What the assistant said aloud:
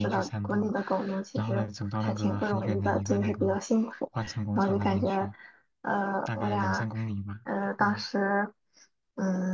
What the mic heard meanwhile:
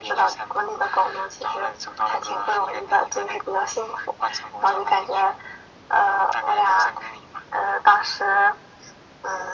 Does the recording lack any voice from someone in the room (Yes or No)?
Yes